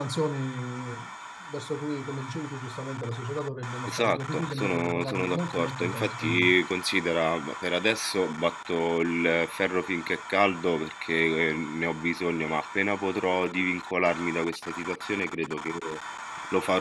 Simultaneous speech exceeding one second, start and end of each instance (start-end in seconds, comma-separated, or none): 3.9-6.5